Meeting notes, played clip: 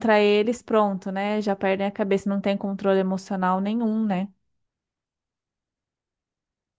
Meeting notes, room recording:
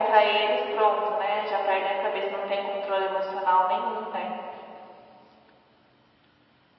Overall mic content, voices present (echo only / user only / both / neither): echo only